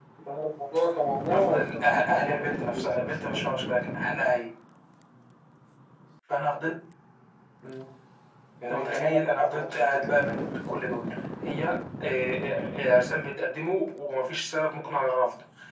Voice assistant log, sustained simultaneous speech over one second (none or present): present